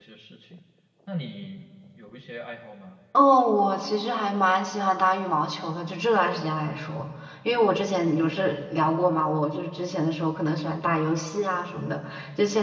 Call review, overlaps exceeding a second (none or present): none